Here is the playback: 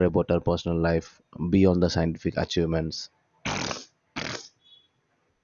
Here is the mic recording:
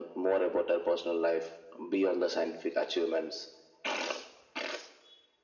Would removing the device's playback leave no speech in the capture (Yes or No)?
Yes